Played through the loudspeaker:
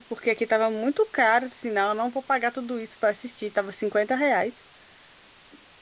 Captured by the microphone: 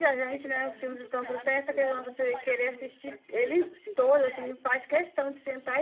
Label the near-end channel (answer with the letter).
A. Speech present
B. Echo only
A